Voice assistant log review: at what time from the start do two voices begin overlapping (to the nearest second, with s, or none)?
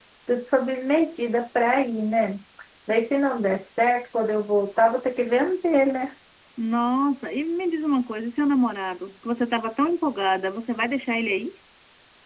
none